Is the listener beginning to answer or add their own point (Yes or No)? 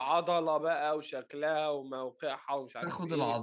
Yes